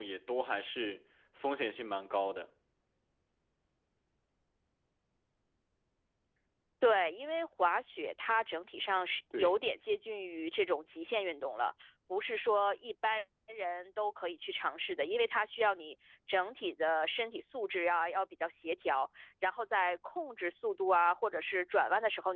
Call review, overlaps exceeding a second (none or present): none